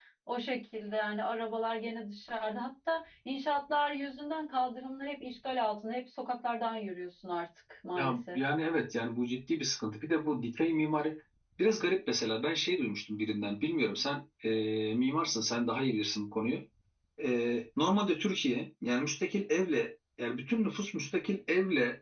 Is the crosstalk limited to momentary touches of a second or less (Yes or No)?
Yes